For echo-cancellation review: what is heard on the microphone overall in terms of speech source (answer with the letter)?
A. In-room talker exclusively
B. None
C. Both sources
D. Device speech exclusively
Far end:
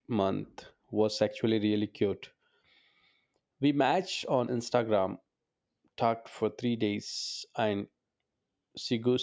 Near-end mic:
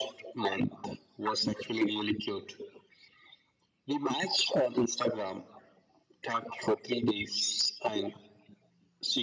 D